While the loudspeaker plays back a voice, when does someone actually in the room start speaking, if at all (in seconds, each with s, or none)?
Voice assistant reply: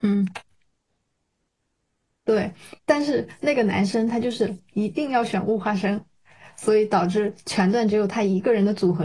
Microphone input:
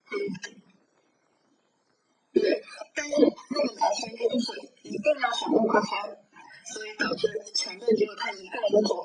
none